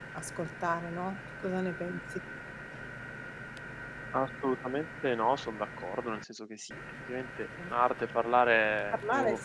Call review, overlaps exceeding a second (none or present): none